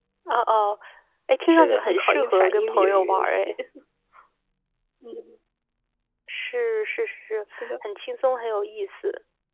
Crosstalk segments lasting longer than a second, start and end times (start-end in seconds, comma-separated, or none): 1.5-3.5